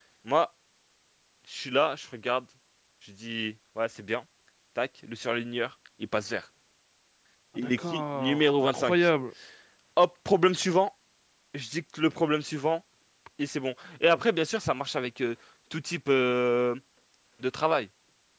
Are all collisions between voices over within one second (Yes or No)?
No